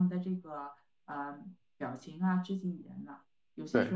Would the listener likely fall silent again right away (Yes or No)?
Yes